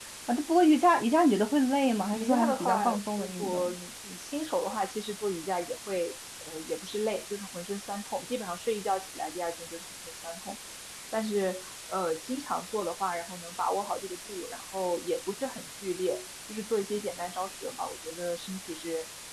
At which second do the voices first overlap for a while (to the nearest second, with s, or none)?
2 s